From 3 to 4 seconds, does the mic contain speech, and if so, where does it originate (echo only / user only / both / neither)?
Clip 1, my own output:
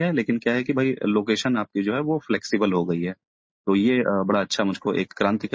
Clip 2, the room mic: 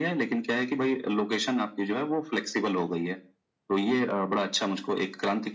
echo only